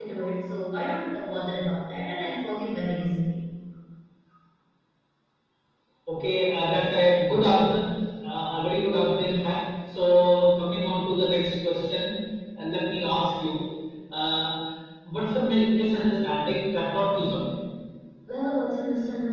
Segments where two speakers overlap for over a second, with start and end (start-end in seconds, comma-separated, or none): none